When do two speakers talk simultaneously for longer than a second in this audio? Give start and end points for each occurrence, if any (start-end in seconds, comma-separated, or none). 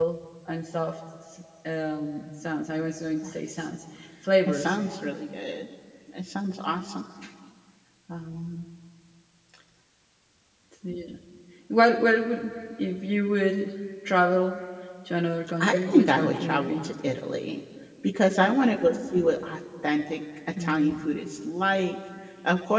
15.6-16.9